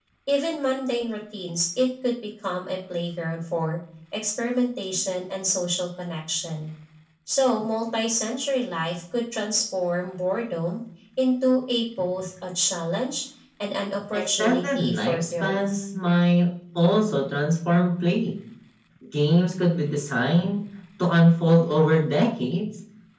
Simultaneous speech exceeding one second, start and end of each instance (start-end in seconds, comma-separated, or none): 14.1-15.8